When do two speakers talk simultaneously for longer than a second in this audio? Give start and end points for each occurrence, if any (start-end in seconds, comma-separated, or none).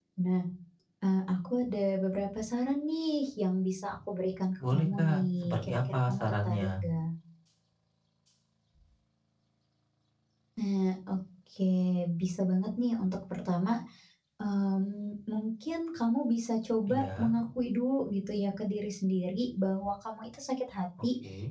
4.7-6.7